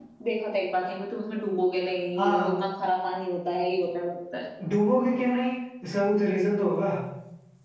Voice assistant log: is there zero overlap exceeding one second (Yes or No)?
Yes